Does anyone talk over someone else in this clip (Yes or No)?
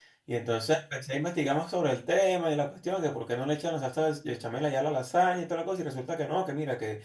No